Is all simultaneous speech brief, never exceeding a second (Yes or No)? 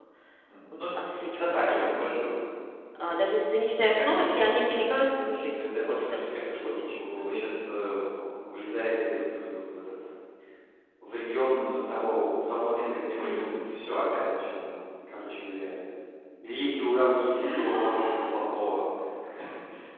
No